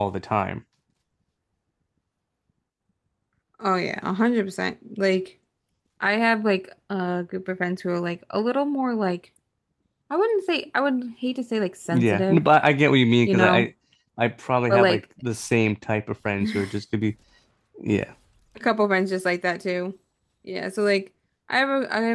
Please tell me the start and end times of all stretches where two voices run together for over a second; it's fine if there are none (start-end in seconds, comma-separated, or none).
none